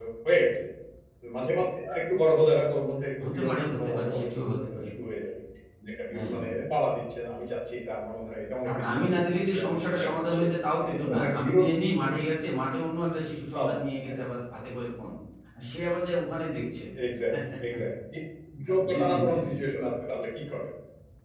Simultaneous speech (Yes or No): Yes